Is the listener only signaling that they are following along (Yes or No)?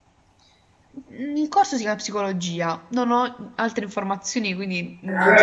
No